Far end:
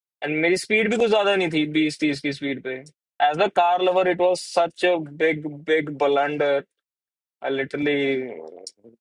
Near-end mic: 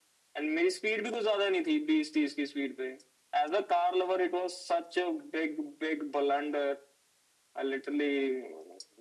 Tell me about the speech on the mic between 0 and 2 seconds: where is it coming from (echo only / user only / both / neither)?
echo only